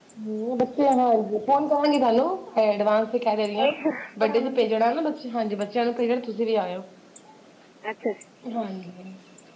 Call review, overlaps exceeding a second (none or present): none